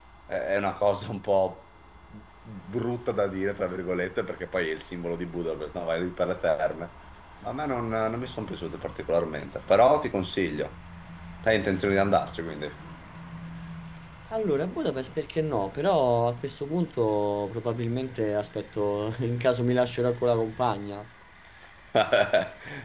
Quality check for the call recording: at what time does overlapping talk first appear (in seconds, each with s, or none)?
none